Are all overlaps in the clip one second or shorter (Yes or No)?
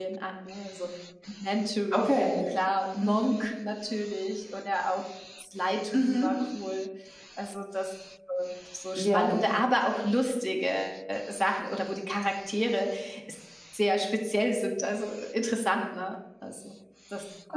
Yes